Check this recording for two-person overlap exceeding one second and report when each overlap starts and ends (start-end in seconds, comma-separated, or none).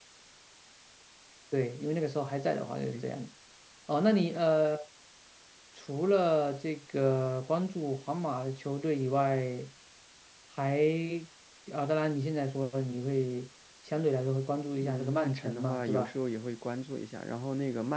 14.8-16.1